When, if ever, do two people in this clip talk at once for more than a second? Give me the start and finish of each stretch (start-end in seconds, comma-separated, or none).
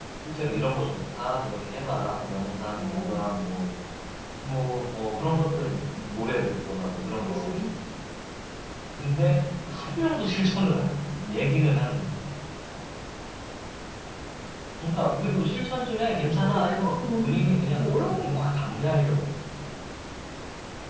16.2-18.7